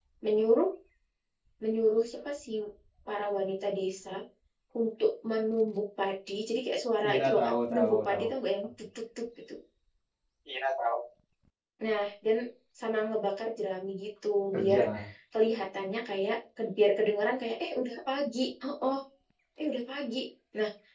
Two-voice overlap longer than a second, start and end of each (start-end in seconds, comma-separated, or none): 7.1-8.3